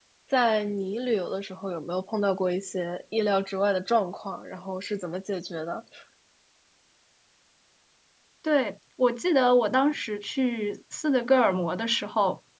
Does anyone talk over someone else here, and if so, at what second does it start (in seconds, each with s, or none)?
none